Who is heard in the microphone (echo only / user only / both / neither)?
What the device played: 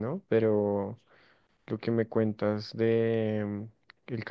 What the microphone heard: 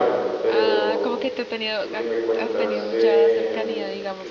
both